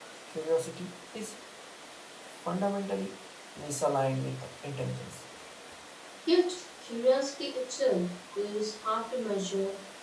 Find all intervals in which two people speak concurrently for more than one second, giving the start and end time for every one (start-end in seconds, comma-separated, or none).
none